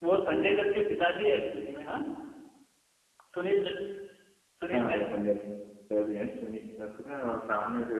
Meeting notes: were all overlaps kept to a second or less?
Yes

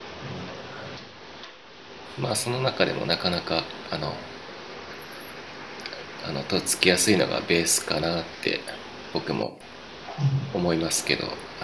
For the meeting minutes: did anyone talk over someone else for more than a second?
No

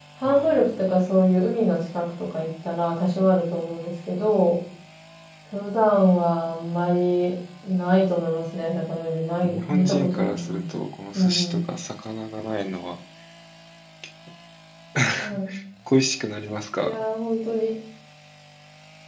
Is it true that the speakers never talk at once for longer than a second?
No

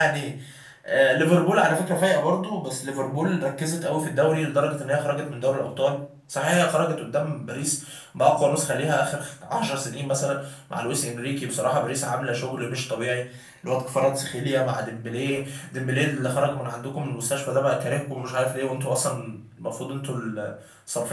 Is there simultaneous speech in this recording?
No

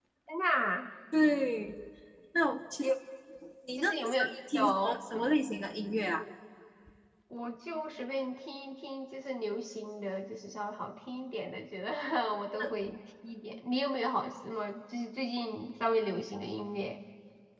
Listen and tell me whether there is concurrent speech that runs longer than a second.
Yes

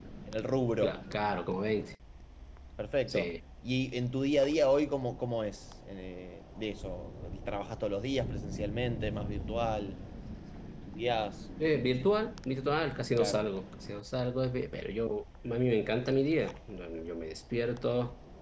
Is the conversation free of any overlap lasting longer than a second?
Yes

